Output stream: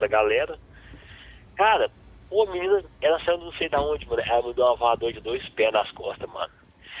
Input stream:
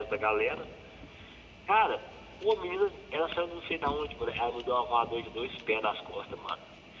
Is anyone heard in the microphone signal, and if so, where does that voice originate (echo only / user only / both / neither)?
echo only